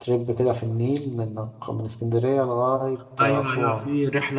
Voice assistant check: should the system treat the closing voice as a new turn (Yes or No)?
Yes